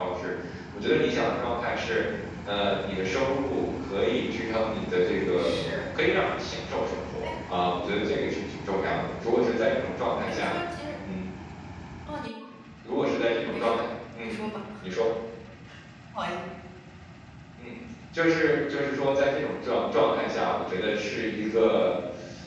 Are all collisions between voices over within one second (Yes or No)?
Yes